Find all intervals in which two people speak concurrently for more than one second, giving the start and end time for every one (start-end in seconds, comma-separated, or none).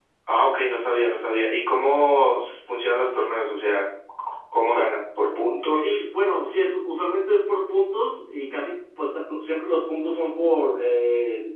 none